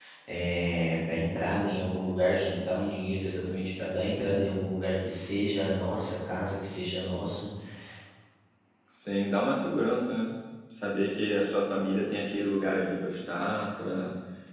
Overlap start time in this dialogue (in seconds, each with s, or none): none